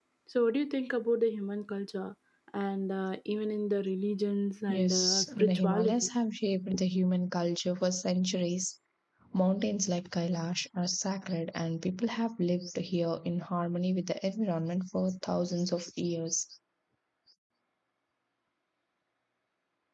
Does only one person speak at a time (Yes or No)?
No